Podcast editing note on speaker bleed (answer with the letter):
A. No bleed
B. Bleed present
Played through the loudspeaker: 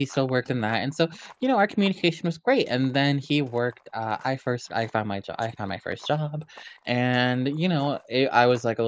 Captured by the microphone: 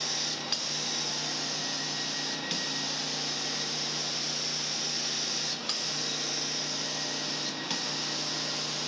A